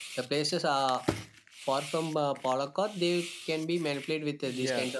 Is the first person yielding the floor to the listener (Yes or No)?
Yes